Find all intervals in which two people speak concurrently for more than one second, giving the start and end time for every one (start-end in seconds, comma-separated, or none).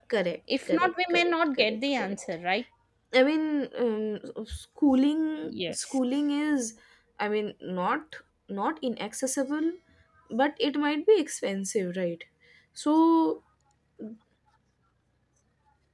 0.7-2.3